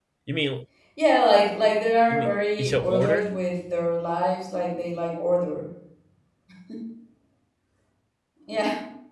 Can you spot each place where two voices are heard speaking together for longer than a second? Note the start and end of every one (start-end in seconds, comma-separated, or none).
2.1-3.3